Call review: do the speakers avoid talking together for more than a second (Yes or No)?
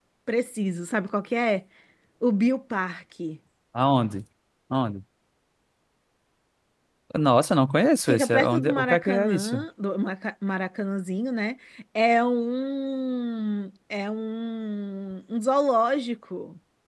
No